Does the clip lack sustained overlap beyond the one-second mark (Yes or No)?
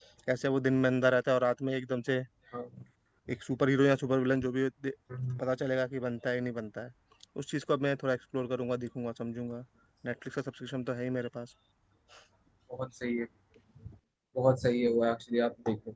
Yes